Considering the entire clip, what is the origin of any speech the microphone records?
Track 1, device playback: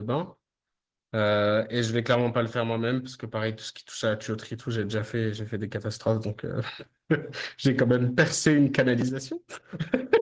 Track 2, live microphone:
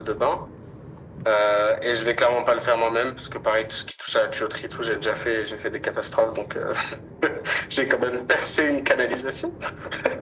echo only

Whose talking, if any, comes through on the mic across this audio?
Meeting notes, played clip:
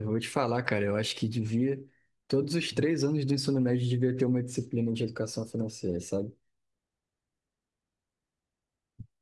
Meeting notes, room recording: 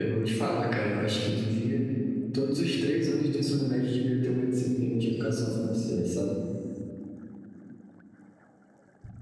echo only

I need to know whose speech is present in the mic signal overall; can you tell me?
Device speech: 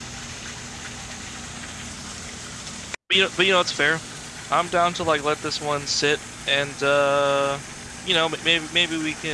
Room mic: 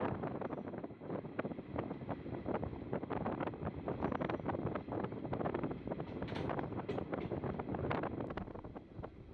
neither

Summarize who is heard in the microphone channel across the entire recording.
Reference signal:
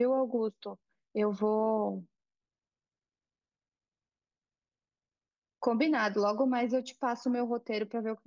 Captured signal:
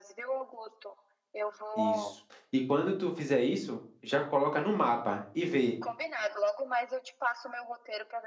both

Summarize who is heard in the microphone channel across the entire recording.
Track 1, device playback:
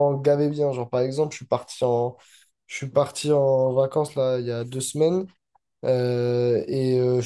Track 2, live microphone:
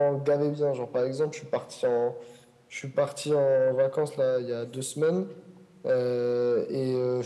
echo only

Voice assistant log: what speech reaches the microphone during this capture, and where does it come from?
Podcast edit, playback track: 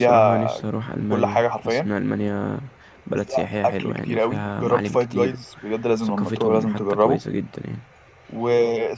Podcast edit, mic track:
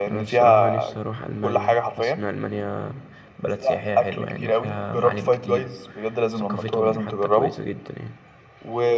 echo only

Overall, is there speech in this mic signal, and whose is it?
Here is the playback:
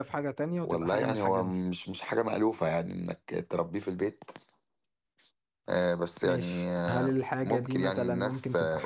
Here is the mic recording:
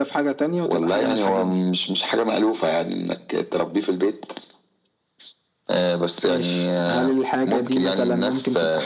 echo only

